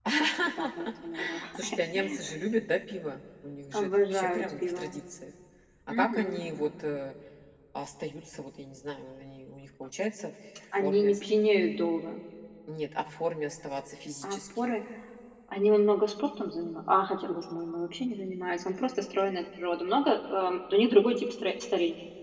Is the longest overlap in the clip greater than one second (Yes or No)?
Yes